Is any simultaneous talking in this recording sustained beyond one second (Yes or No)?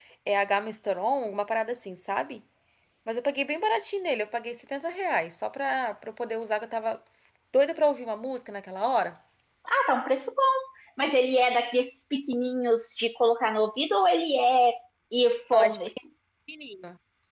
No